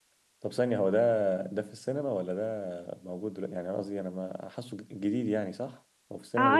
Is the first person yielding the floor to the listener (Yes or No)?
Yes